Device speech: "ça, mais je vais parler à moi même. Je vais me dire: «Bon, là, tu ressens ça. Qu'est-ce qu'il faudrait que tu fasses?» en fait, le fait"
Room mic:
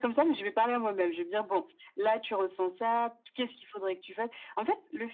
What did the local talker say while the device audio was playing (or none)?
none